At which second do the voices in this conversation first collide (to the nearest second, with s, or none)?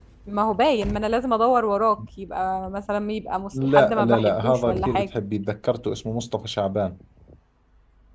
4 s